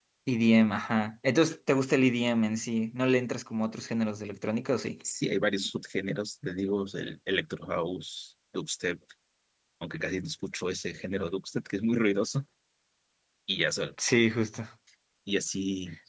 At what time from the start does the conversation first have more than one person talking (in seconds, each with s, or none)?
none